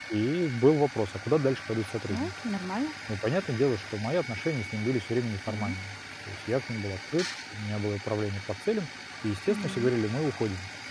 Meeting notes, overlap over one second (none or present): none